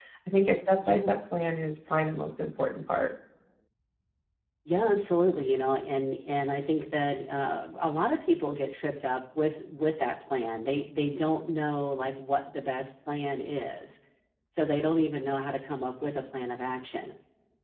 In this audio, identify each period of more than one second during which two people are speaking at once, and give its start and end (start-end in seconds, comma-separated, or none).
none